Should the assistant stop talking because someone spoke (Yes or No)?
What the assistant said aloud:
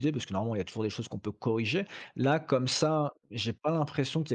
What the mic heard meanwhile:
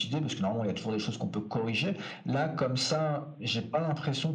No